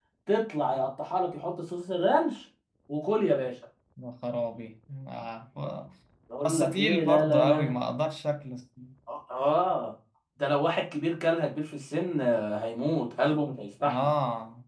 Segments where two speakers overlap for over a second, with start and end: 6.4-7.7

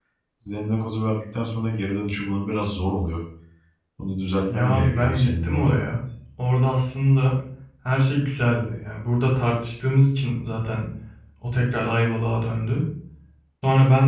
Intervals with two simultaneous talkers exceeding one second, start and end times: 4.5-5.8

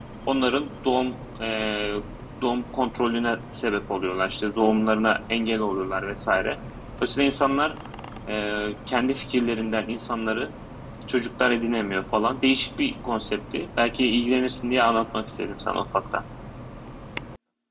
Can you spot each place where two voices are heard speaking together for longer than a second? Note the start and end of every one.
none

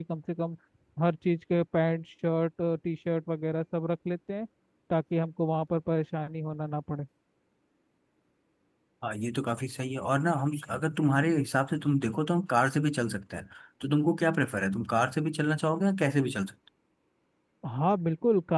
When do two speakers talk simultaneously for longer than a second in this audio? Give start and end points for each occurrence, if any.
none

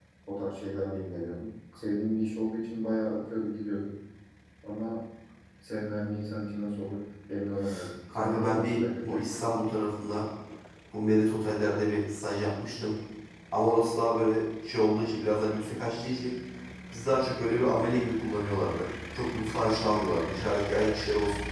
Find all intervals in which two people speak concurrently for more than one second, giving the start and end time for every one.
8.1-9.3

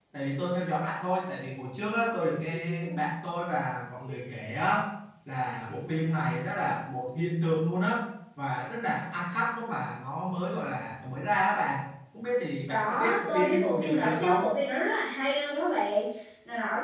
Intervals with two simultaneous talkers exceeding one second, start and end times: 12.7-14.4

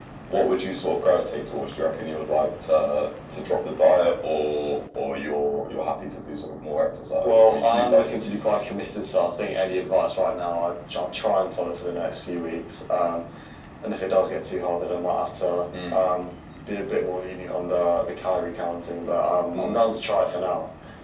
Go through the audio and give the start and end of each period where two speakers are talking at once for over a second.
7.2-8.6

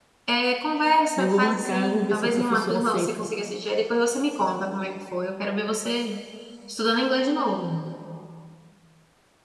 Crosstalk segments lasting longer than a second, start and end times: 1.2-3.3

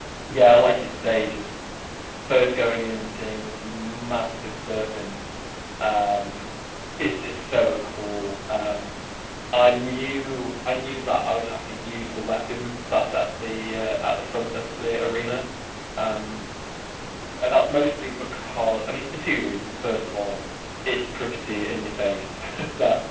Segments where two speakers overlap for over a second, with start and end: none

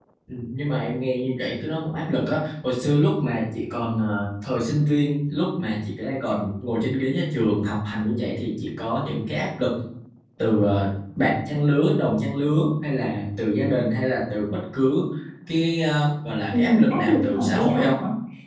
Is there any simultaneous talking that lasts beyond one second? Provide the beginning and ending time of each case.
16.5-17.9

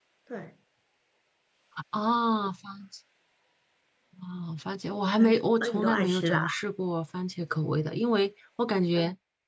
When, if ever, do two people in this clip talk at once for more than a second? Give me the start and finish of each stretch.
5.2-6.4

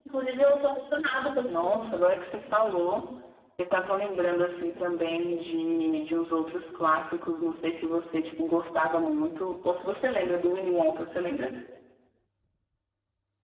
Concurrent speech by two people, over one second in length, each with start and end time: none

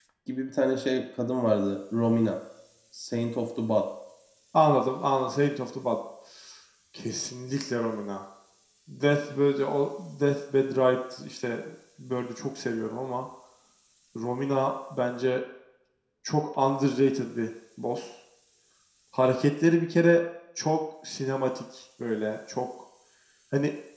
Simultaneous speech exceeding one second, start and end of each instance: none

